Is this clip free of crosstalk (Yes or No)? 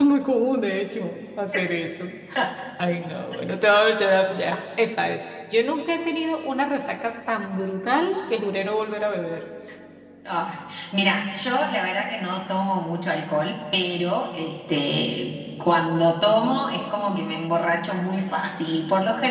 Yes